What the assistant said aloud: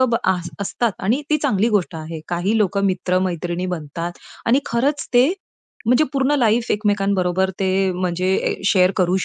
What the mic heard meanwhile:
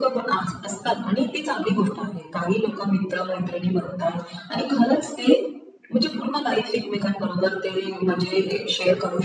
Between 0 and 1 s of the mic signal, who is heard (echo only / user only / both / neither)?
echo only